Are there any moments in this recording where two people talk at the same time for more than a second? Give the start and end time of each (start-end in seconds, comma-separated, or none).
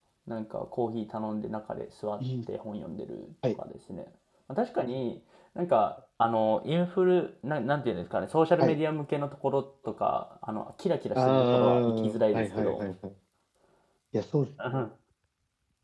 11.1-12.8